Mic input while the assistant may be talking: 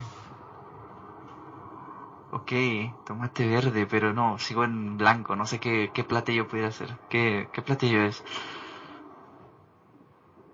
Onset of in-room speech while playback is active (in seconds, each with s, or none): none